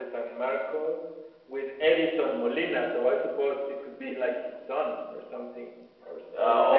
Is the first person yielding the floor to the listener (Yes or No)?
Yes